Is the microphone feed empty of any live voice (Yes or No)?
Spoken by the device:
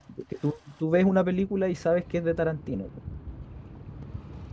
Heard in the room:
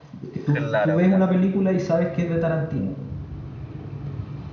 No